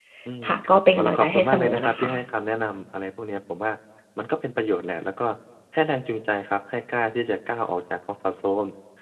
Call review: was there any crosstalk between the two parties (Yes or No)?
Yes